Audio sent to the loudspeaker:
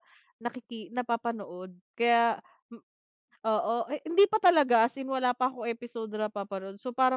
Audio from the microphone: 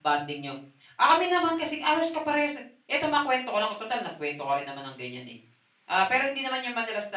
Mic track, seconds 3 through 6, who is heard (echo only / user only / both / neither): user only